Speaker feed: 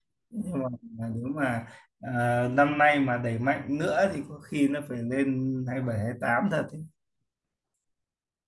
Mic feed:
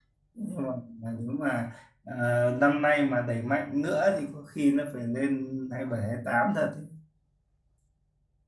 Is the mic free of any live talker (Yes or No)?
Yes